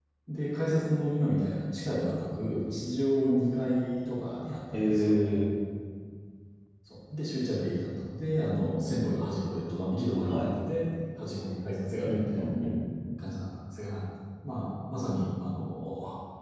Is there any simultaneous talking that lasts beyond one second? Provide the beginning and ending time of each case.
none

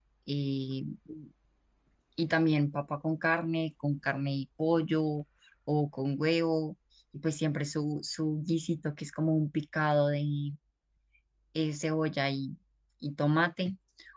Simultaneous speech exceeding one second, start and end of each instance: none

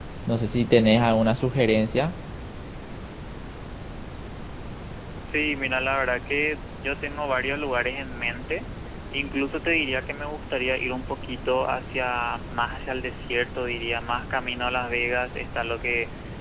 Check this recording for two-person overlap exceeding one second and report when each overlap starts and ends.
none

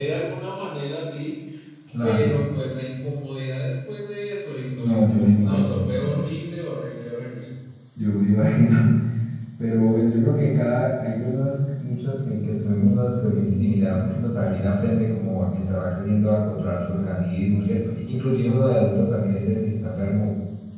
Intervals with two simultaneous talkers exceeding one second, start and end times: 4.7-6.0

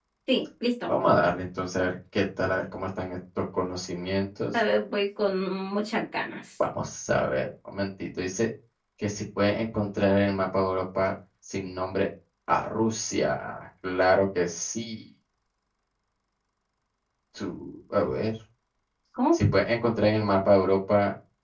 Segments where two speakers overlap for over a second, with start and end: none

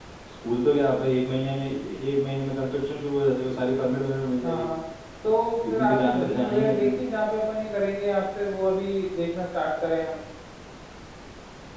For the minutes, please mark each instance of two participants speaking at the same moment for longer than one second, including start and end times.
5.7-6.9

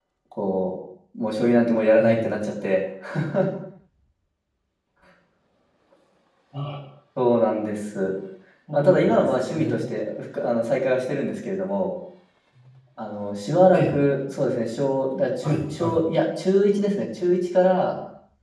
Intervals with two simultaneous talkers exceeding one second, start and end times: 8.7-9.9

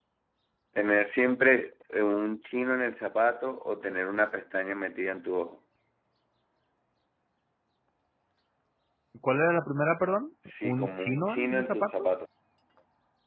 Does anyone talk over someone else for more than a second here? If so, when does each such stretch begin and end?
10.6-12.1

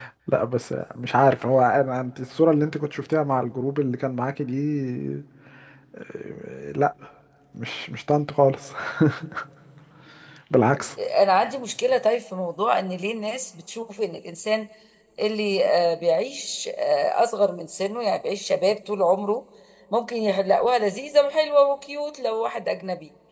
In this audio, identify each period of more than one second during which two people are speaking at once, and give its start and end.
none

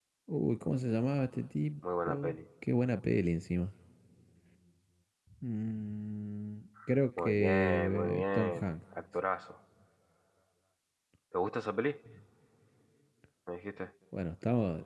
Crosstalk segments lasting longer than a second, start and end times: 7.2-8.7

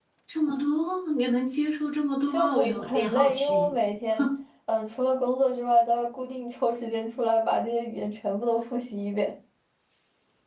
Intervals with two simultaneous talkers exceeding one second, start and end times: 2.3-3.7

